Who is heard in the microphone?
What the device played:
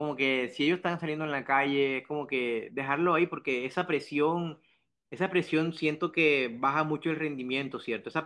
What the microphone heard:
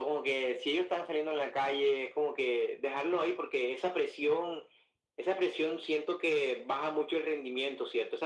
echo only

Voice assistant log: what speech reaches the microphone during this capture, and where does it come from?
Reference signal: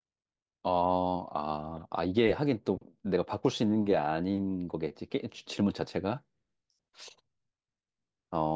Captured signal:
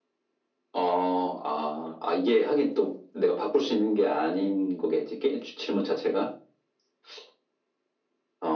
echo only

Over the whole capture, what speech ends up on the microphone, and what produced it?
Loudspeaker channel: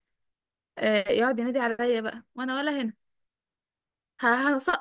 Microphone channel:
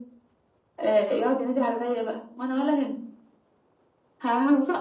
echo only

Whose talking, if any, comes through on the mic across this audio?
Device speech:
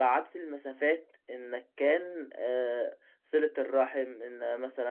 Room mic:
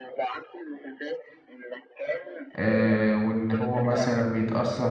both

